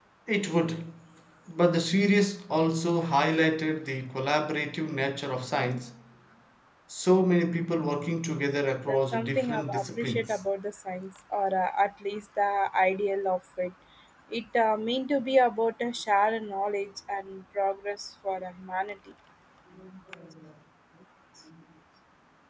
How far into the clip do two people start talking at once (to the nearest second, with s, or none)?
9 s